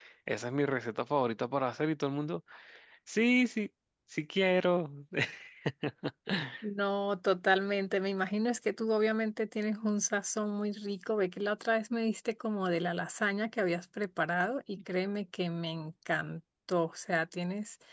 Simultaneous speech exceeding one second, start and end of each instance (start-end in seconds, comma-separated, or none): none